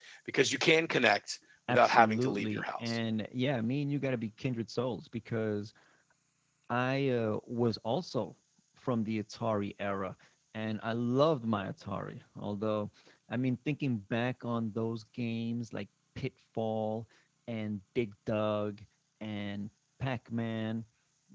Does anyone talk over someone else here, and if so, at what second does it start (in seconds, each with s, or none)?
1.7 s